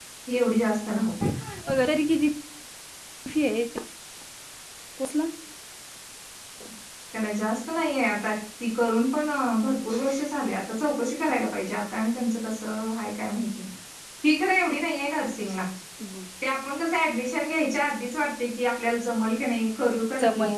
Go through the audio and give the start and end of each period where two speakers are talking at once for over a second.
none

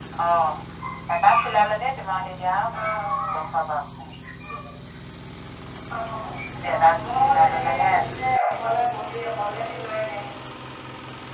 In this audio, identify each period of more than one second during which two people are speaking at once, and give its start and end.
6.7-7.9

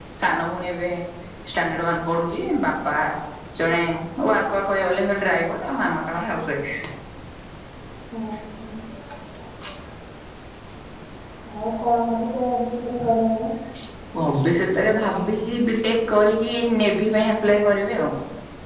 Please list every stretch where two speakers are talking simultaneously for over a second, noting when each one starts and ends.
none

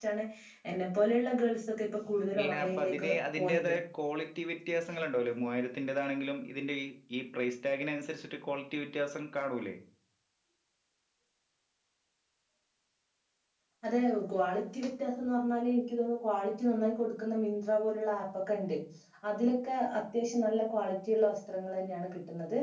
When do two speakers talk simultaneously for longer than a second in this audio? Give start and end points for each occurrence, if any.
2.3-3.7

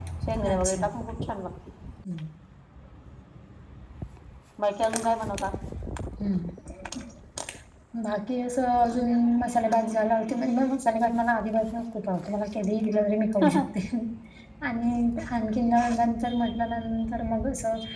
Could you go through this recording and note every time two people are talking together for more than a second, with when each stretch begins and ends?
none

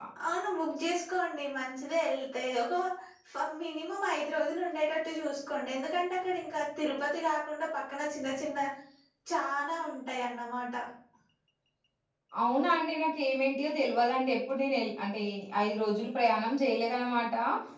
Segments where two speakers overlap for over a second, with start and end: none

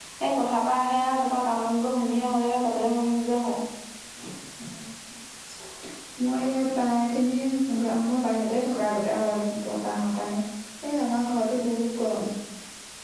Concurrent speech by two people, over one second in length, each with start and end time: none

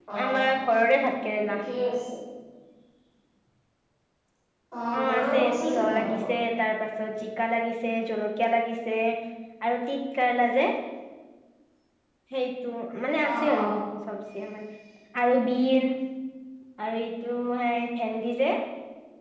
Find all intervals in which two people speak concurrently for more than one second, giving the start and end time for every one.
5.0-6.3

